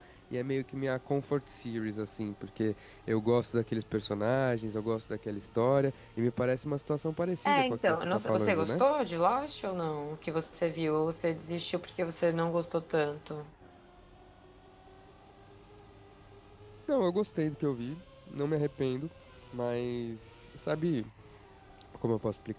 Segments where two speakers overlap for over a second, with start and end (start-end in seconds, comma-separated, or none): 7.5-8.8